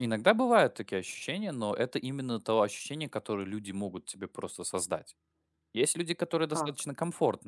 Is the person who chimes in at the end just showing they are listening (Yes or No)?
Yes